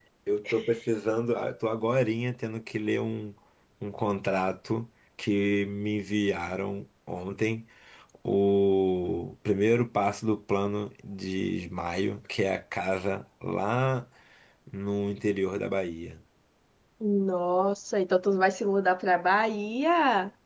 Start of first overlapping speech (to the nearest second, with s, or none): none